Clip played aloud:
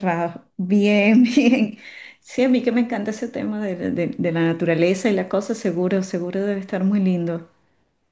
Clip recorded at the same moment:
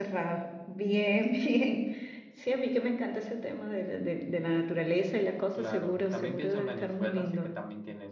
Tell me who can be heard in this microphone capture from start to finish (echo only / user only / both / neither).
both